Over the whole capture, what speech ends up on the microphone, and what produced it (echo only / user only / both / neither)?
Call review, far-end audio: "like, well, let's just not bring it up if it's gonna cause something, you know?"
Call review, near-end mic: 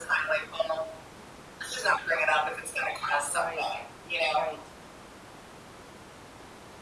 both